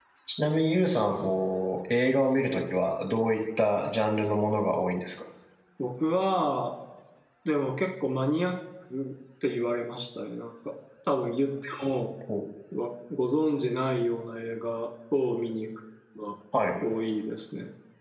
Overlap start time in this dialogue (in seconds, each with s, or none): none